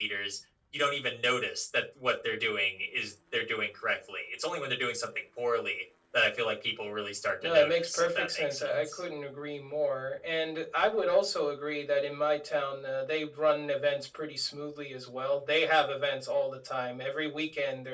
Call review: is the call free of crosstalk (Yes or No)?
No